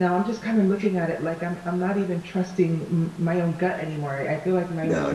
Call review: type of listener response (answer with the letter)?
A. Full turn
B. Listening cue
A